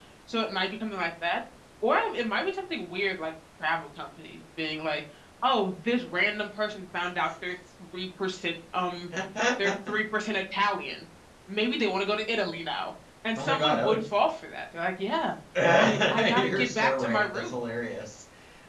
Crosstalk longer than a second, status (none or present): present